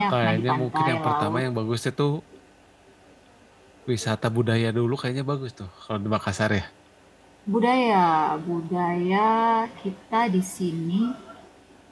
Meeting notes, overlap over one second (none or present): present